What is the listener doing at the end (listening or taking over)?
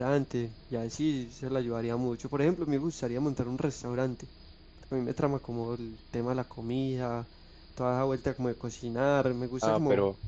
taking over